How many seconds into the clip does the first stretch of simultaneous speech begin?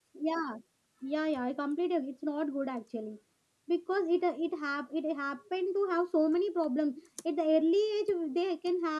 none

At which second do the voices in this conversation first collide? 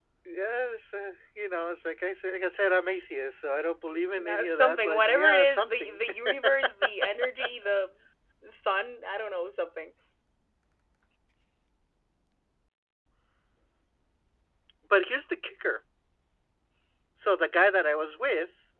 4.2 s

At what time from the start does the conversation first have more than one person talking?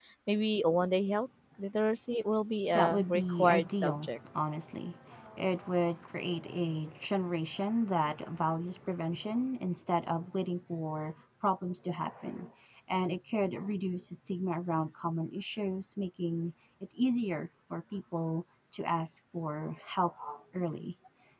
2.6 s

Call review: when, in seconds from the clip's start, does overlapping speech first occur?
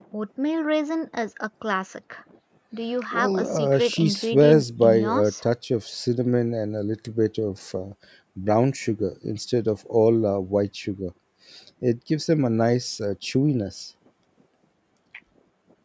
3.1 s

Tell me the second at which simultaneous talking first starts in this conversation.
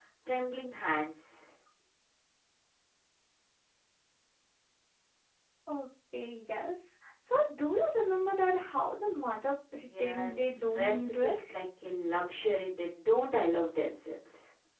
9.9 s

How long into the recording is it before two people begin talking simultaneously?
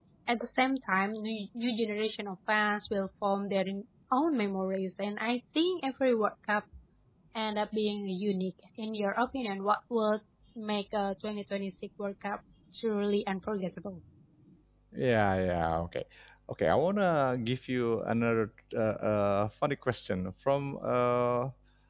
none

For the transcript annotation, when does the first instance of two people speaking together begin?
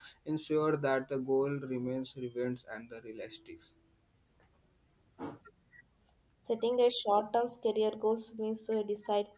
none

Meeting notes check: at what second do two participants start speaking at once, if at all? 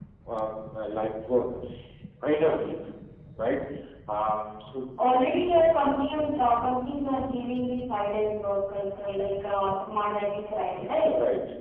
none

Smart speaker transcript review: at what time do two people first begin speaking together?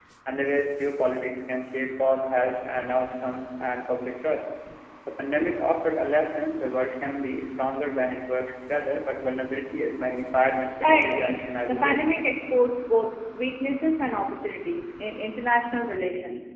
10.8 s

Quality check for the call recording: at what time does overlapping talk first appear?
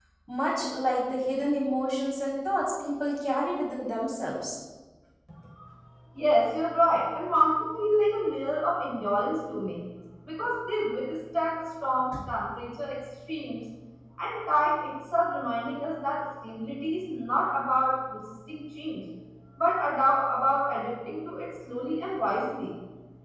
none

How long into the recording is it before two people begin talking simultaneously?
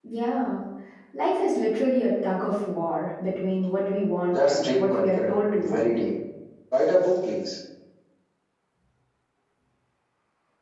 4.3 s

